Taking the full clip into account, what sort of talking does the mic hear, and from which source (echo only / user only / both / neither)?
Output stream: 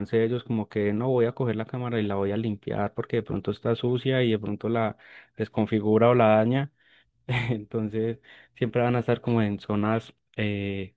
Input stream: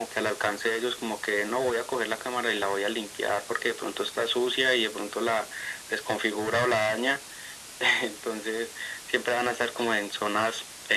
echo only